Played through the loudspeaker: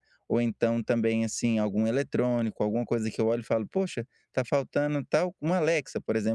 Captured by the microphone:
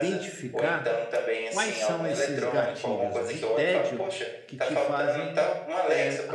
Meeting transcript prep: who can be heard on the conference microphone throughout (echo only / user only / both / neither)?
both